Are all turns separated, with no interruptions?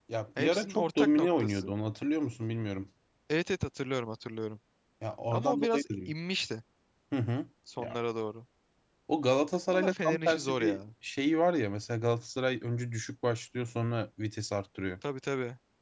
No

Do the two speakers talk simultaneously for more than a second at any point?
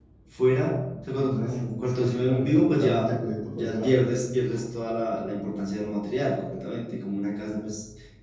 Yes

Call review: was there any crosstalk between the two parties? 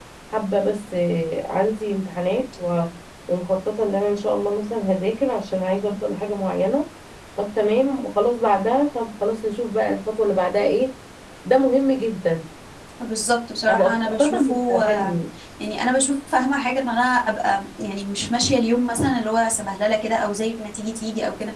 Yes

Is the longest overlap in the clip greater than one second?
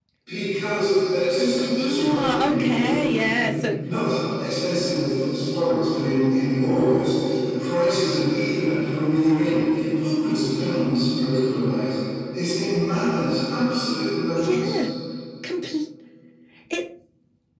Yes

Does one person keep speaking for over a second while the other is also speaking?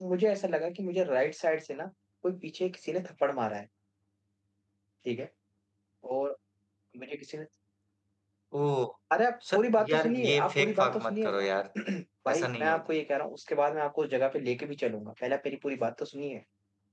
Yes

